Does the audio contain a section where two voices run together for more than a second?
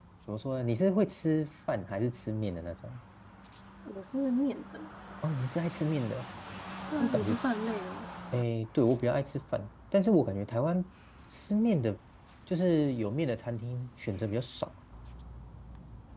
No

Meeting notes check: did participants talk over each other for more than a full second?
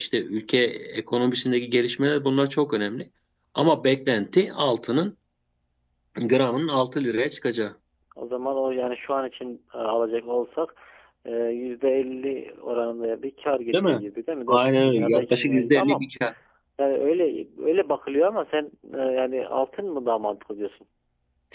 Yes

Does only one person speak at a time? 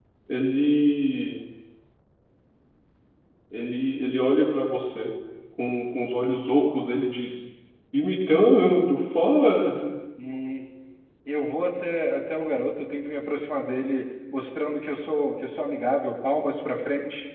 Yes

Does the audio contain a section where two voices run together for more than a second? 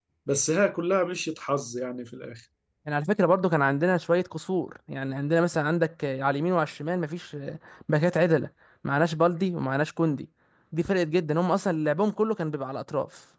No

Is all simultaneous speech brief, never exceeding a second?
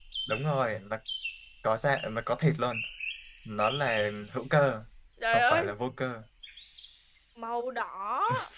Yes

